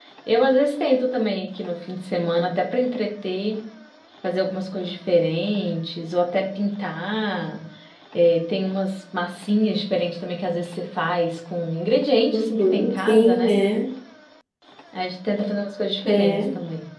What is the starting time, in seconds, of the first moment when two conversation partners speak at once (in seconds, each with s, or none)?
12.3 s